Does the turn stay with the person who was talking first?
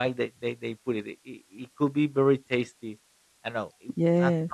Yes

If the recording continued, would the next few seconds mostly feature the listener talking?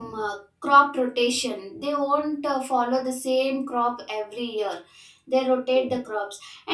No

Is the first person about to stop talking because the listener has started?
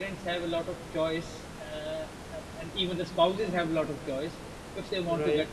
No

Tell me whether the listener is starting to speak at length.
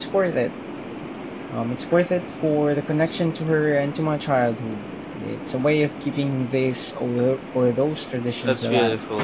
Yes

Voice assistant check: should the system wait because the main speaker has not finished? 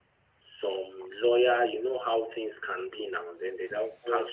Yes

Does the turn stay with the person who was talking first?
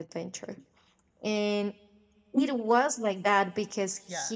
Yes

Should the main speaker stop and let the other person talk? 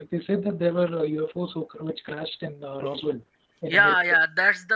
Yes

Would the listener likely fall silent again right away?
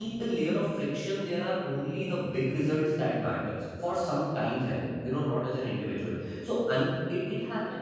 Yes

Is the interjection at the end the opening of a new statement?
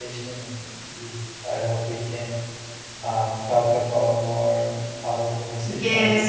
Yes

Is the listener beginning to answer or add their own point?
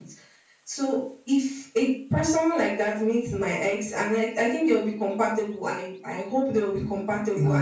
No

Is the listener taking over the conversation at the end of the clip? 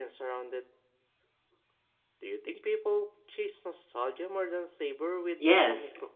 Yes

